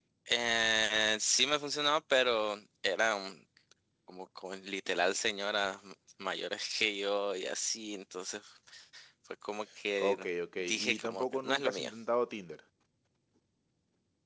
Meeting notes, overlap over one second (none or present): present